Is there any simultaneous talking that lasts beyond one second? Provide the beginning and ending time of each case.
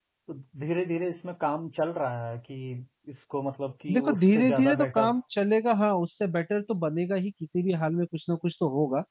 3.9-5.1

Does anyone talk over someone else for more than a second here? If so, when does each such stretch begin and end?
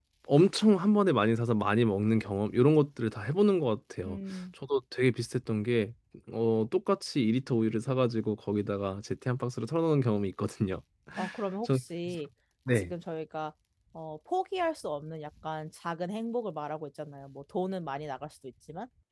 none

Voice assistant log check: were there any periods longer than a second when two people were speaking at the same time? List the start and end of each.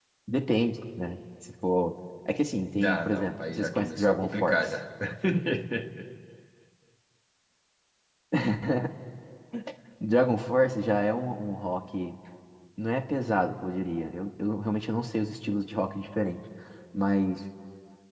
2.8-4.7

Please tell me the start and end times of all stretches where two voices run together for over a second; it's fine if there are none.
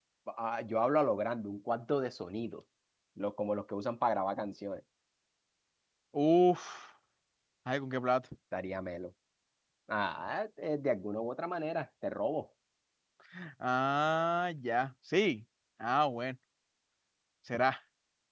none

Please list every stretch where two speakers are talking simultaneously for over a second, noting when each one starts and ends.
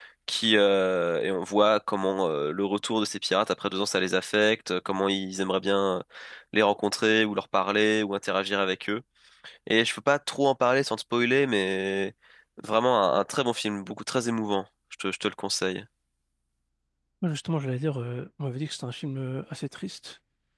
none

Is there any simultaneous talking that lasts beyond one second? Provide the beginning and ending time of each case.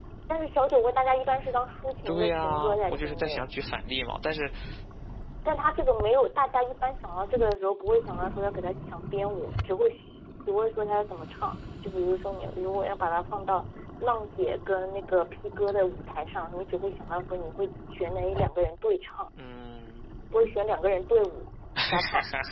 2.0-3.4

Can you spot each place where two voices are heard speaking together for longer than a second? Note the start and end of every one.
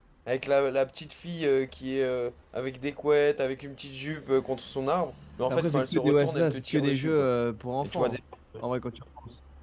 5.5-7.3

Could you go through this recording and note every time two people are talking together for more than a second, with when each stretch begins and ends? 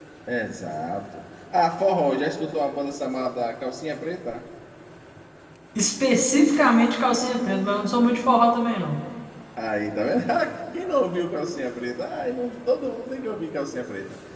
none

